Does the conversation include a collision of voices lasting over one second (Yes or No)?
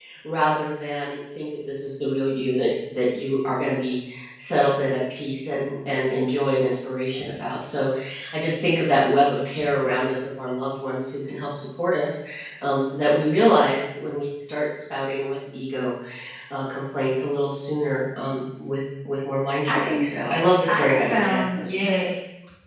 Yes